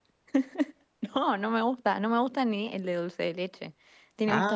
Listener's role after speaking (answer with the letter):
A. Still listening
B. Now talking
B